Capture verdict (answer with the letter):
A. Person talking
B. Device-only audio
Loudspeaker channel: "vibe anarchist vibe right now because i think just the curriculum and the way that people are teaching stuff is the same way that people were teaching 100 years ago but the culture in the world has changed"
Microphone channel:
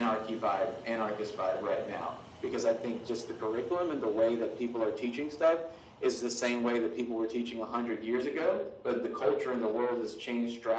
B